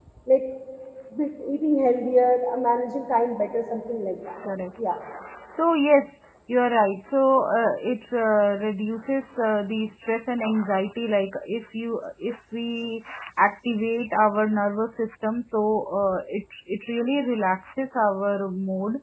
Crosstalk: none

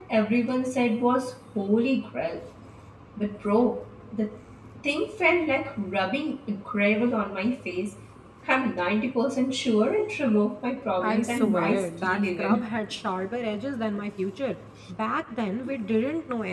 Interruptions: present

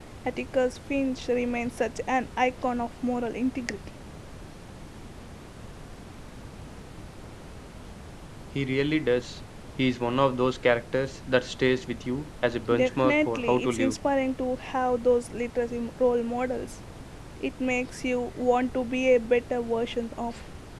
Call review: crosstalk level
present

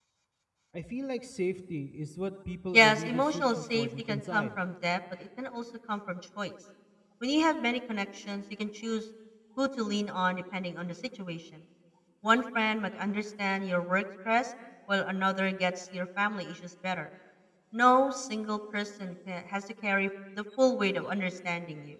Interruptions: present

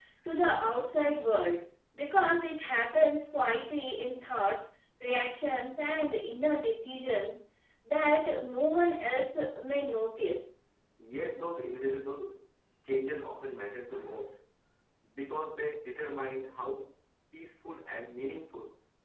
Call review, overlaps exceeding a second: none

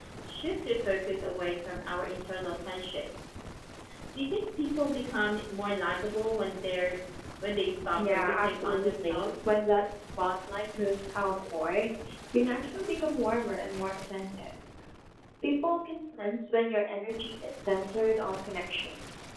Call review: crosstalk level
present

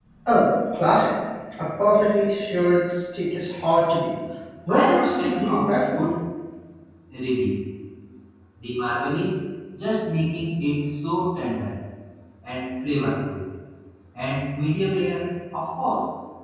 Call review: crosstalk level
present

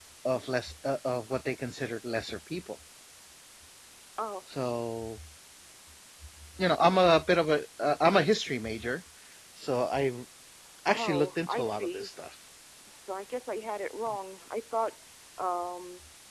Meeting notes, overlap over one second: present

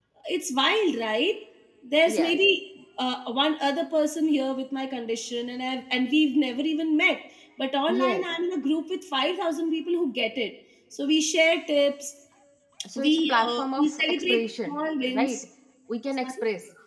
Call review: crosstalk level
present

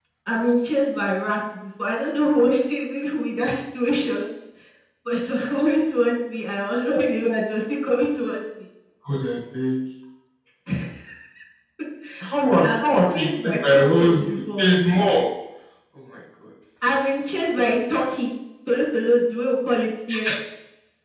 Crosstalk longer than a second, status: present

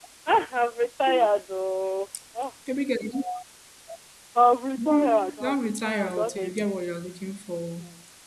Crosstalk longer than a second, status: present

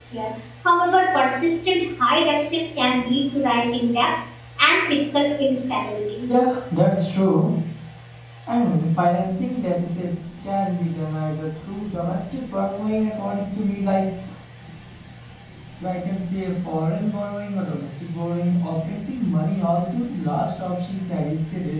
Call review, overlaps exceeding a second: none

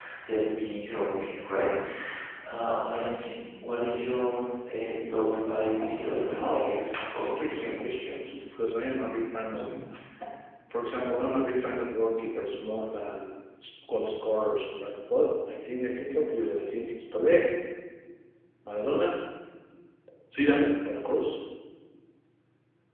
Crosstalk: present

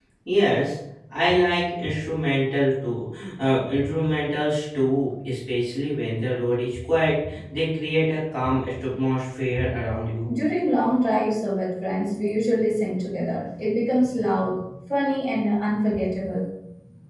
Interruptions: none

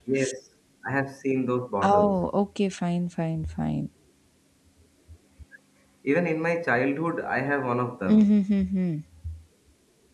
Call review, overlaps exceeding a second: none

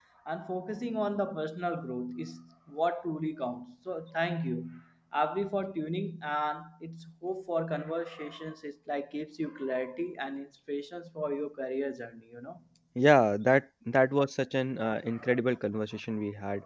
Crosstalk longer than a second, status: none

